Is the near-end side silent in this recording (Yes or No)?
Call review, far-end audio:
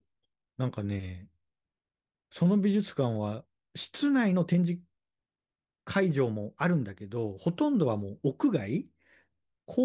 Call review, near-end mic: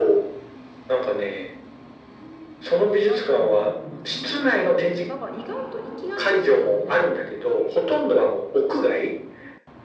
No